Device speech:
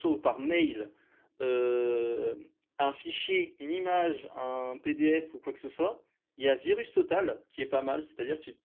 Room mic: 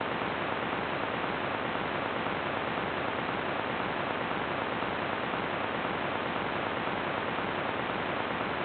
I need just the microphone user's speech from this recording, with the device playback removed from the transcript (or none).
none